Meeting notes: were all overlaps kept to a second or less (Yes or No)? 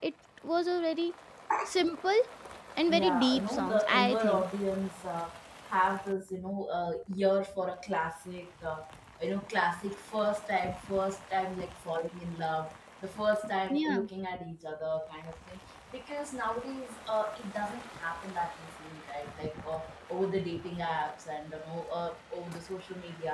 No